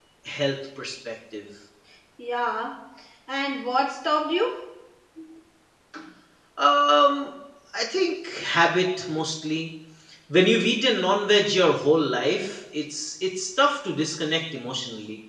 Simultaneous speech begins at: none

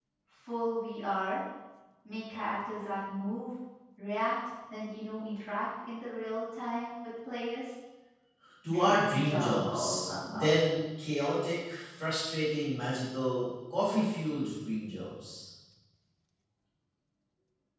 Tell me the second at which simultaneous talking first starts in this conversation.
9 s

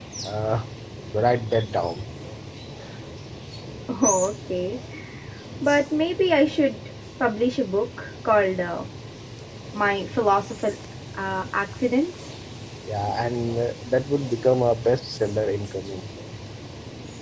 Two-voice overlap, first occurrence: none

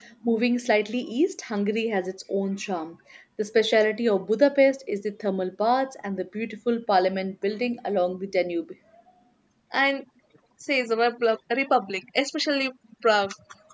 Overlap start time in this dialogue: none

